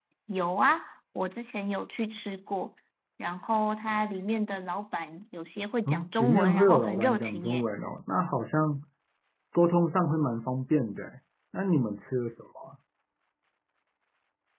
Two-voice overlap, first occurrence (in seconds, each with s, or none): 5.9 s